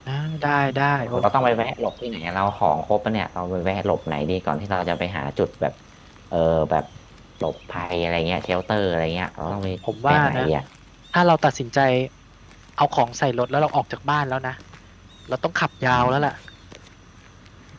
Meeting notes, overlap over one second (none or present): none